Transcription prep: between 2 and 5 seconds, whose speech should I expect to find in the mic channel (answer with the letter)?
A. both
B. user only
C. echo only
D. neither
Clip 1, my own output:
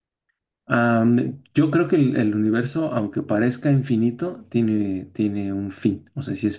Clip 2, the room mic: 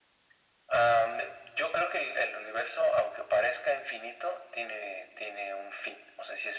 C